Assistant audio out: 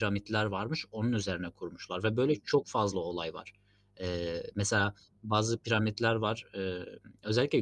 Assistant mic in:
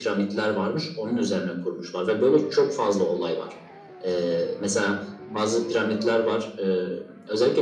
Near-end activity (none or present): none